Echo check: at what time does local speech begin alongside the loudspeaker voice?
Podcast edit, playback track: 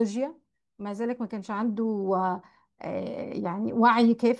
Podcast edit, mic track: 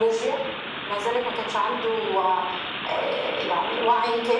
none

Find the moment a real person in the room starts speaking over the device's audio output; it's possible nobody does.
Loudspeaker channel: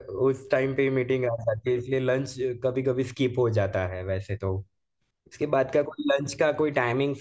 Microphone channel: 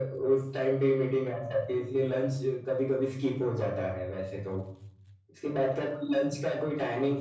none

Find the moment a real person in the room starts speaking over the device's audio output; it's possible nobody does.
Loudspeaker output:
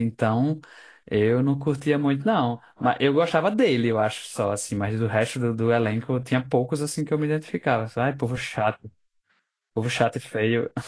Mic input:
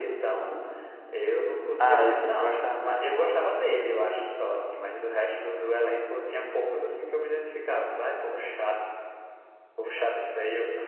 1.8 s

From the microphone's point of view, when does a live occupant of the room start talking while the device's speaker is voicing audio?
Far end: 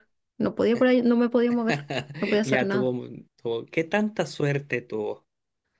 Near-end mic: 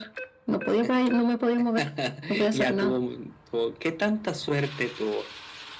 none

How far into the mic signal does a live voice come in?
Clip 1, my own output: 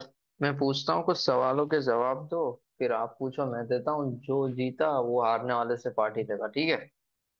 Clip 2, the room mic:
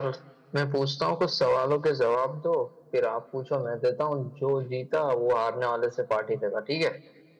none

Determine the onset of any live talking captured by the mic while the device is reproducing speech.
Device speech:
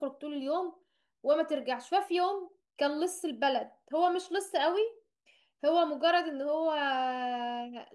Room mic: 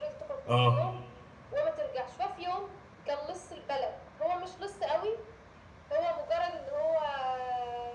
0.4 s

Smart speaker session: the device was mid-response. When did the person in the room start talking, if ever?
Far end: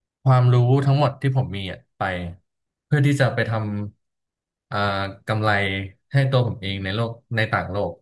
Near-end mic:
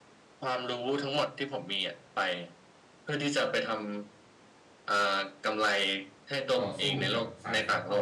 6.6 s

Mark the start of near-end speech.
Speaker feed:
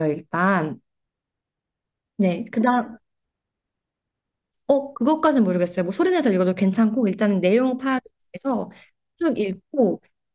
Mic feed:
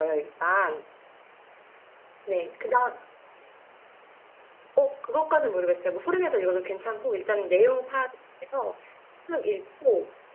none

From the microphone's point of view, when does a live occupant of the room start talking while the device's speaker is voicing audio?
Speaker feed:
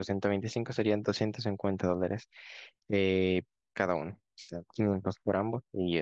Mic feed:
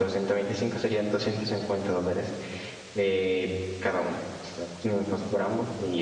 none

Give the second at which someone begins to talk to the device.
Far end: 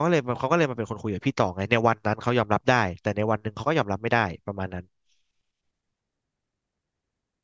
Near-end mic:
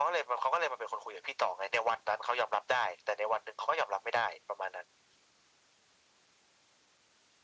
none

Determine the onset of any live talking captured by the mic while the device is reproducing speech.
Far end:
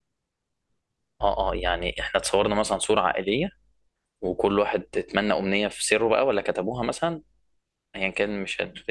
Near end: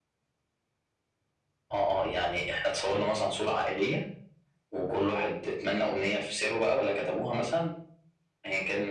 none

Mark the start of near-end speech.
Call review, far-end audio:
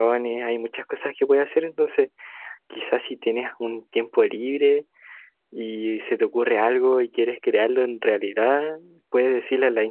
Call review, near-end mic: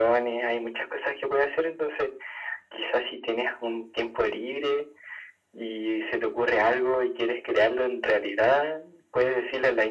none

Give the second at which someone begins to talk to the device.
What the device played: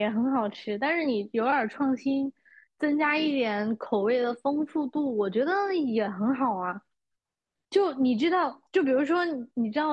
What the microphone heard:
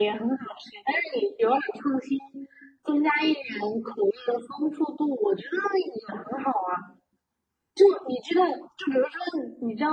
none

